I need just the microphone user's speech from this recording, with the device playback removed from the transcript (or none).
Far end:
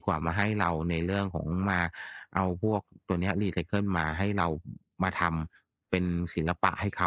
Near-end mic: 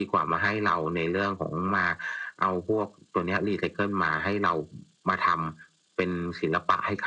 none